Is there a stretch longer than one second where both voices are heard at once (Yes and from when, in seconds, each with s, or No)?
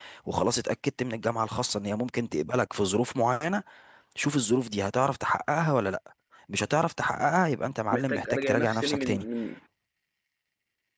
Yes, from 7.9 s